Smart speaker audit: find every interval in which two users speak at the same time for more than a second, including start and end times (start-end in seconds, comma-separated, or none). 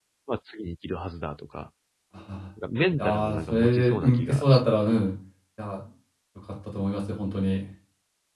3.0-4.9